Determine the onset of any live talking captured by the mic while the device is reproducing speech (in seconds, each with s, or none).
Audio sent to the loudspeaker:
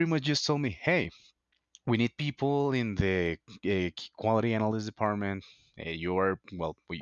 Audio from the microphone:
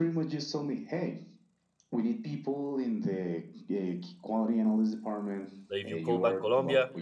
5.7 s